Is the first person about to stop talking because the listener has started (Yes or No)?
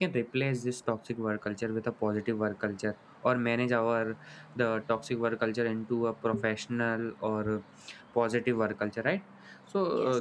No